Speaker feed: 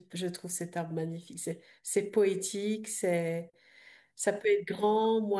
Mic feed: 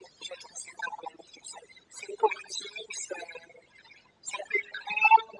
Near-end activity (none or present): none